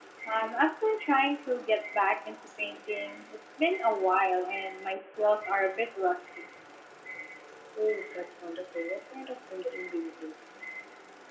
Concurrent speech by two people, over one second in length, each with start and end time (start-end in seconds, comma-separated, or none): none